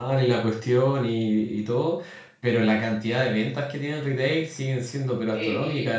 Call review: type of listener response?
listening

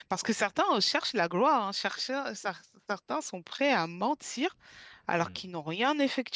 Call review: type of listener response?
listening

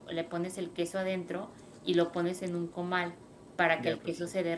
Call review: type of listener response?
listening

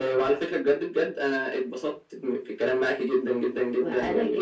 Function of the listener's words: taking over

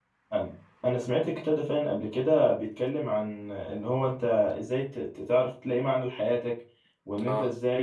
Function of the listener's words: listening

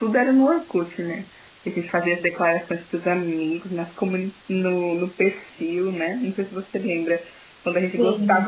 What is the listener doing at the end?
listening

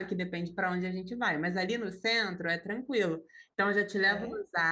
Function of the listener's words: listening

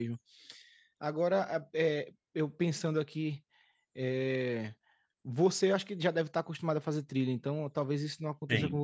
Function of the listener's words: listening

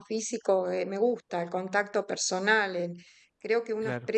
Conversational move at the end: listening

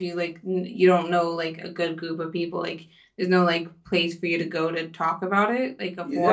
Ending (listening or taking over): taking over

